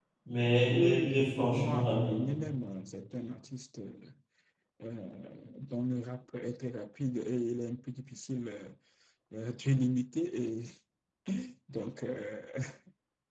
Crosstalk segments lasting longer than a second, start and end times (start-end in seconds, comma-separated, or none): 0.7-2.1